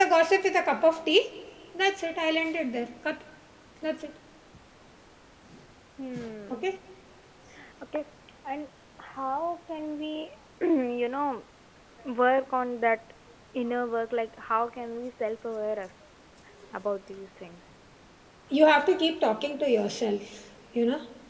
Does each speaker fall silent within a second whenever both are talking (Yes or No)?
Yes